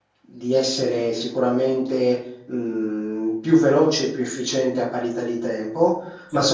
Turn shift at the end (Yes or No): No